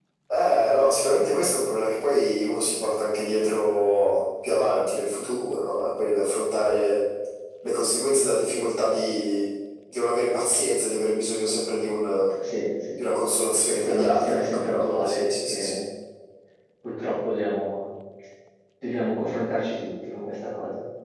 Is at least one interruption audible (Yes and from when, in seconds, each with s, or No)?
Yes, from 13.7 s